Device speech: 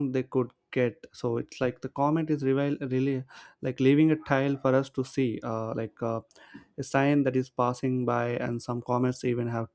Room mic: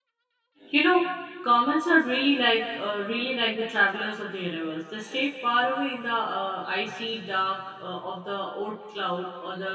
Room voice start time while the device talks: 1 s

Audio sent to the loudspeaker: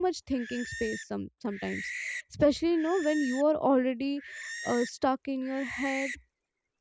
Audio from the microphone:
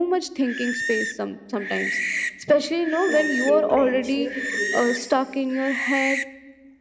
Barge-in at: 3 s

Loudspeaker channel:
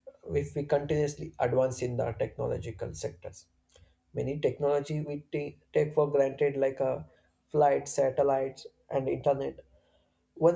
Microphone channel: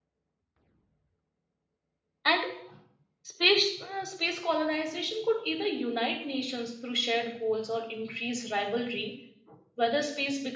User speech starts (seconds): 2 s

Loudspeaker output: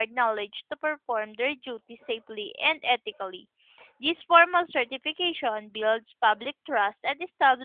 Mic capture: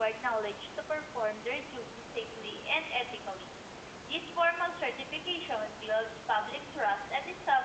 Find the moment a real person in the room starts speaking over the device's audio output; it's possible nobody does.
none

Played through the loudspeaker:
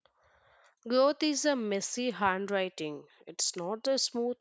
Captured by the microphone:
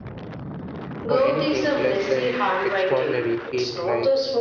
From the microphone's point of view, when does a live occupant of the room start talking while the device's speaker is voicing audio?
1 s

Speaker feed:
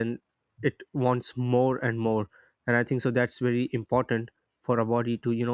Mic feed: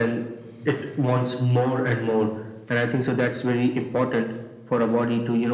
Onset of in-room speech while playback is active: none

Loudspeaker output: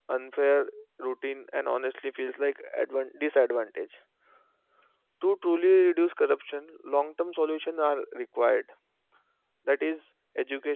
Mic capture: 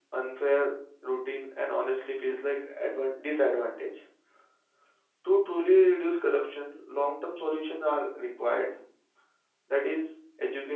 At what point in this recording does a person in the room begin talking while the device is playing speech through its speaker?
none

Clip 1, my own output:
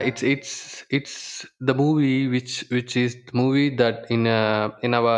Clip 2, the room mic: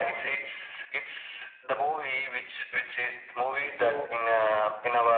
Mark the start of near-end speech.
4 s

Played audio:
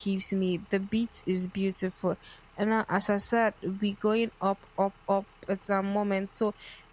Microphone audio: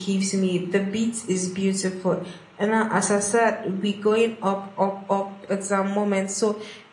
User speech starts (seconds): none

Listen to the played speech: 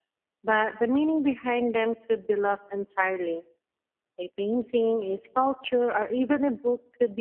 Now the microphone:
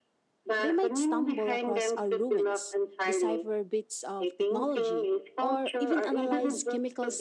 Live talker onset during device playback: 1 s

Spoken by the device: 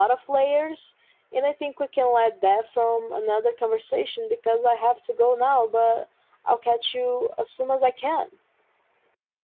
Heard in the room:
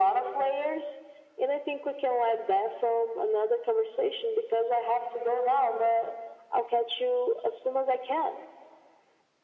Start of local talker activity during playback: none

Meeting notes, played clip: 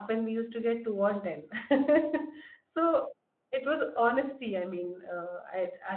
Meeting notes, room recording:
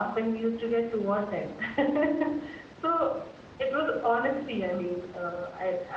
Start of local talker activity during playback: none

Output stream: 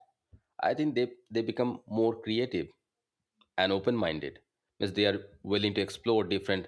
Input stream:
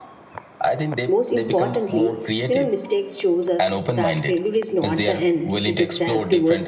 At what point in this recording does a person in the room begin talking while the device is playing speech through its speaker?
1 s

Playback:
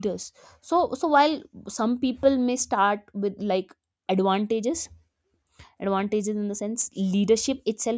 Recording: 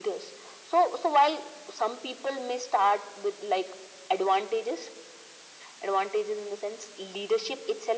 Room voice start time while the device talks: none

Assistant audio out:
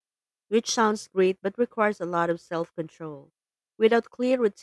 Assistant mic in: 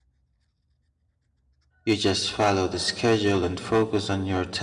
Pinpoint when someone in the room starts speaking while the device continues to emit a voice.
2 s

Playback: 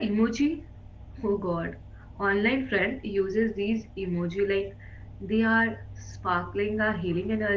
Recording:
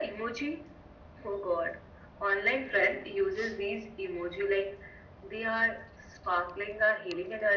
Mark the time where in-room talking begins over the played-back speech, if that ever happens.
none

